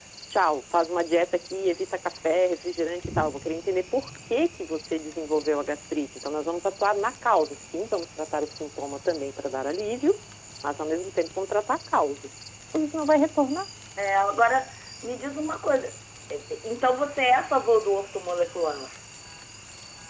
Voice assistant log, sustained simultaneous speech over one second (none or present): none